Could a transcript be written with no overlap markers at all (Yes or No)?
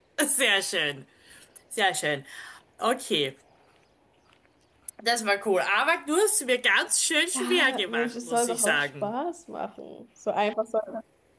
No